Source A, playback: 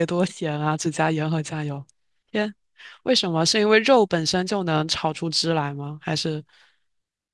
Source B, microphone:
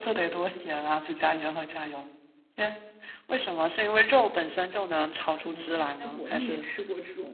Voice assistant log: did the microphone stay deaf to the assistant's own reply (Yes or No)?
No